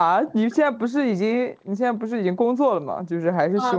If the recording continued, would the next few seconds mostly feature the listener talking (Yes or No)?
Yes